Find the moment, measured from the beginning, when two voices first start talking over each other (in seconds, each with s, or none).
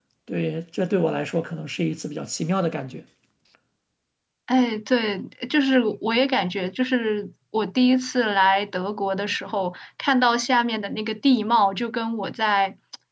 none